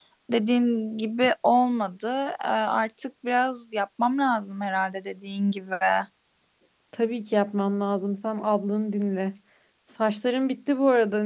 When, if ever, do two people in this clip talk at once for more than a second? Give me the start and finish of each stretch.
none

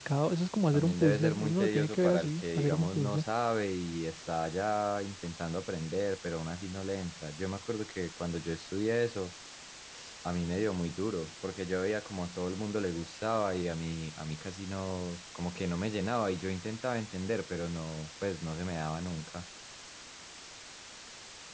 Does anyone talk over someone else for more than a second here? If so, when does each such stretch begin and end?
0.7-3.2

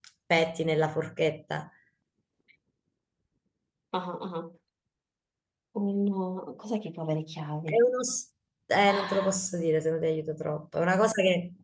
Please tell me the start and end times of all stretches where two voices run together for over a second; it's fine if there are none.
none

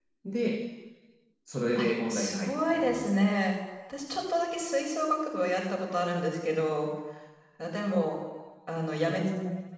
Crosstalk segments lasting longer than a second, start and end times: 1.8-3.1

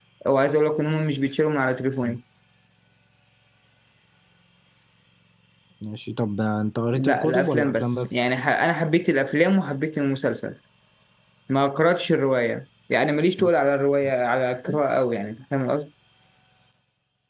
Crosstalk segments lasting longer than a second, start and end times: 6.9-8.2

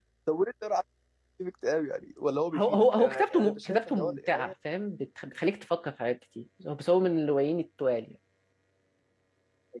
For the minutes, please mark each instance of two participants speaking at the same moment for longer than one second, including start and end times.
2.5-4.5

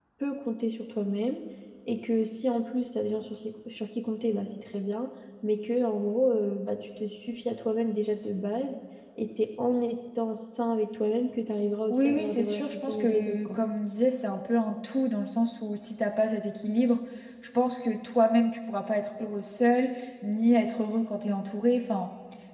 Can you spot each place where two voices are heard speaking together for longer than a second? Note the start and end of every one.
11.9-13.6

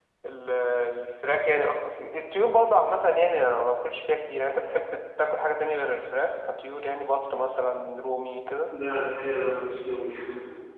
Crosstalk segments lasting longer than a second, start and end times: none

